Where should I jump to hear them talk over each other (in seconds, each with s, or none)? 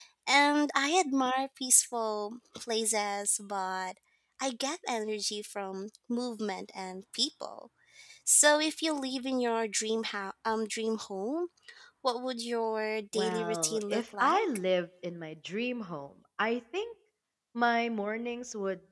13.1 s